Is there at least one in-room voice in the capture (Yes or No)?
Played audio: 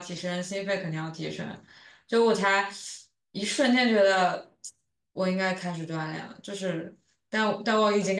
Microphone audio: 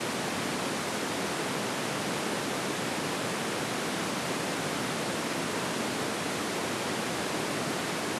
No